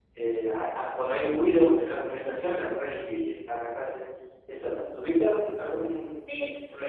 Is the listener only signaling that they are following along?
No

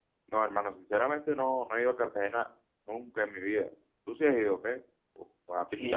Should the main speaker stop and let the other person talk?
Yes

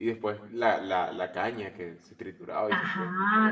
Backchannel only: No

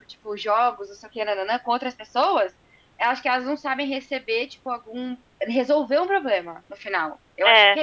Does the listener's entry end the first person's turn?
Yes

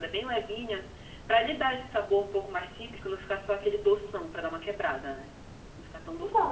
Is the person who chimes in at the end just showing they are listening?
No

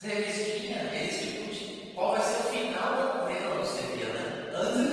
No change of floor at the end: Yes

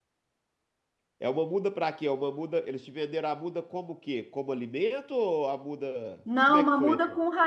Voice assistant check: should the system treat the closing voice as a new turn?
Yes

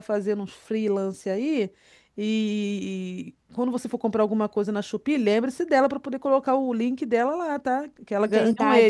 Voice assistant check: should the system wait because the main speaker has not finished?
No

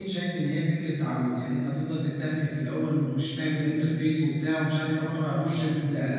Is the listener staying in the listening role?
Yes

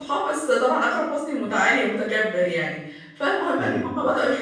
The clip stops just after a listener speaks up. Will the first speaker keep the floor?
Yes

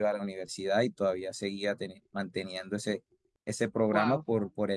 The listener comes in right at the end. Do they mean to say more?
No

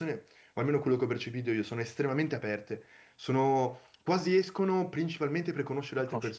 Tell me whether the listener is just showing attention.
No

